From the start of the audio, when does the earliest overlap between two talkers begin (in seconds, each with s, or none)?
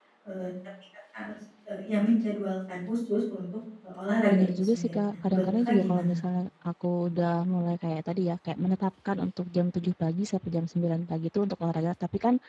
4.3 s